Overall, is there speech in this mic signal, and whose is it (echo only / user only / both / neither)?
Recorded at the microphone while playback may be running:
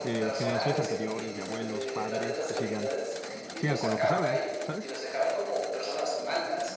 both